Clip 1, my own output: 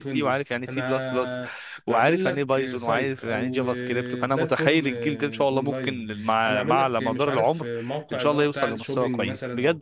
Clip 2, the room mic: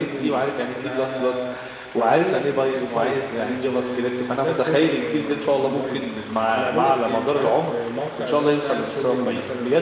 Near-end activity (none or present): none